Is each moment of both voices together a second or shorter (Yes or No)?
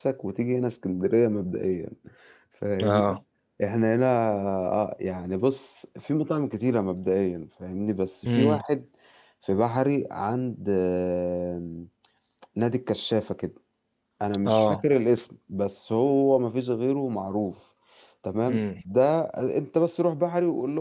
Yes